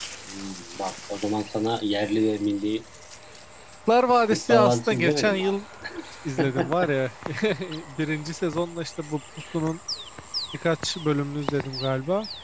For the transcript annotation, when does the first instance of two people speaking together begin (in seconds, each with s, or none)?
4.3 s